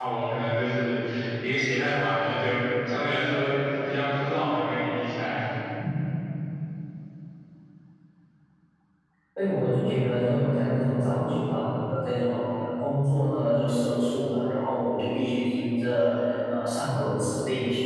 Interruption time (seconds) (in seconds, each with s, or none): none